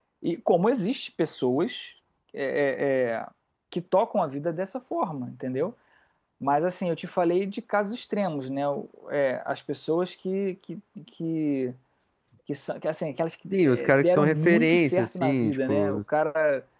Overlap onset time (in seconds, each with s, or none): 13.5 s